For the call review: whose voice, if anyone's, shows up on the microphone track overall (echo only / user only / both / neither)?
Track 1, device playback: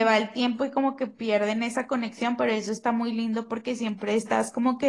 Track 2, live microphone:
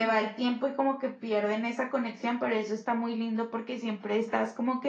echo only